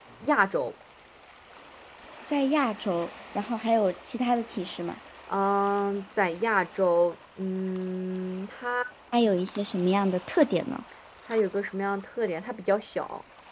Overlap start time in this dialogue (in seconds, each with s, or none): none